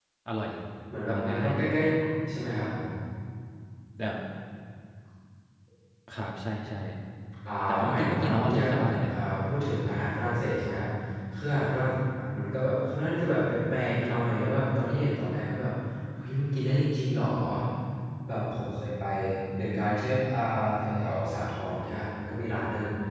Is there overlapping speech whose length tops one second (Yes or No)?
Yes